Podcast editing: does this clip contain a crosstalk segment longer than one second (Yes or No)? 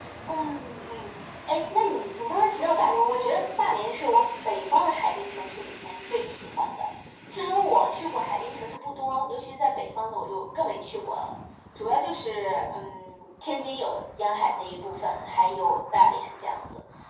No